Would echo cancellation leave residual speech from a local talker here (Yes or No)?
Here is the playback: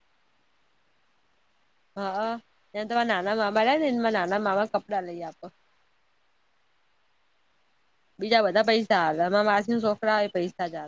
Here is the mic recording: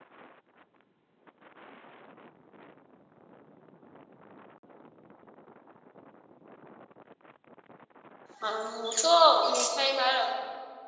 Yes